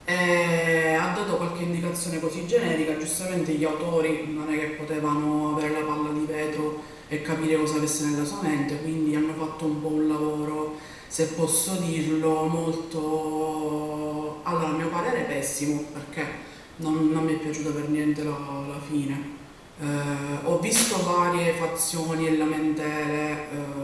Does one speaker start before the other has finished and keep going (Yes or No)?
No